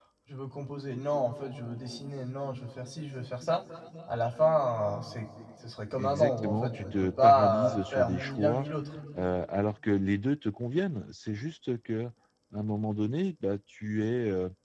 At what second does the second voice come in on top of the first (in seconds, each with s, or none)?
6.0 s